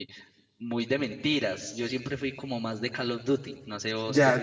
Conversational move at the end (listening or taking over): taking over